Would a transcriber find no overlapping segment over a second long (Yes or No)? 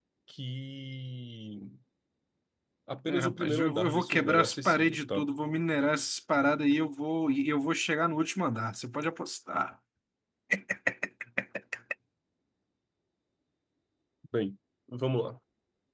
No